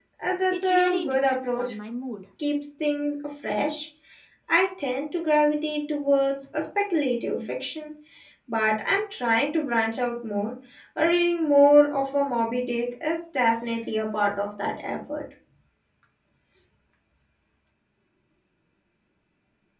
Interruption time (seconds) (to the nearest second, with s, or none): 1 s